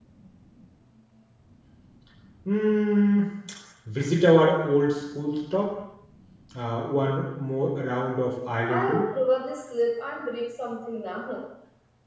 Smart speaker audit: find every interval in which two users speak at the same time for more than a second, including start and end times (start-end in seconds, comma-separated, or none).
none